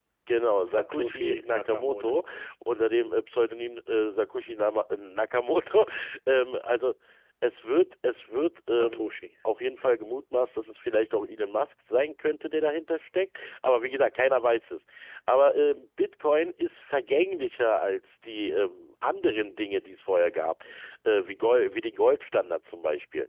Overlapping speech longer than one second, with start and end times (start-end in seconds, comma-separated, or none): 0.7-2.2